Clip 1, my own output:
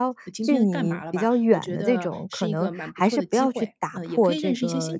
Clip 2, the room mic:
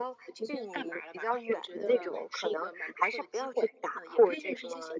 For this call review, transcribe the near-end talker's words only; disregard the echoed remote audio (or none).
none